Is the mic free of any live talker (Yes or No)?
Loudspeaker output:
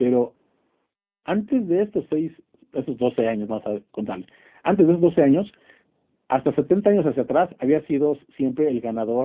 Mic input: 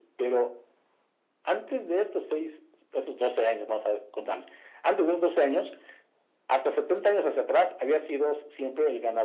Yes